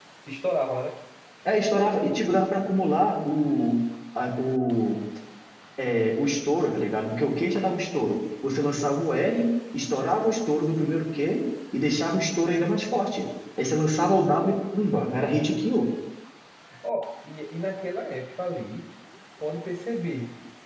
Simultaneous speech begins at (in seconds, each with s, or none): none